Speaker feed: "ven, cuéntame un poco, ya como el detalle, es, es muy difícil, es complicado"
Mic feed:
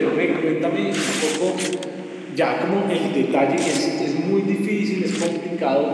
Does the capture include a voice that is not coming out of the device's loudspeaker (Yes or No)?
No